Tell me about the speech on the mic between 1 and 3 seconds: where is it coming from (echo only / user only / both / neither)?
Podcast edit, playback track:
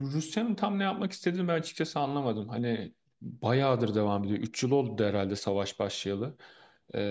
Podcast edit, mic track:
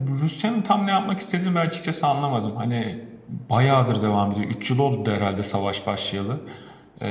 echo only